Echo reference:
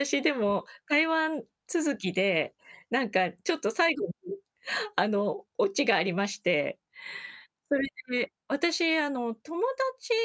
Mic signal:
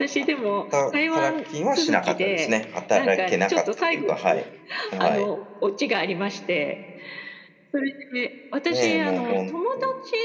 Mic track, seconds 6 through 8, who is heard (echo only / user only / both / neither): echo only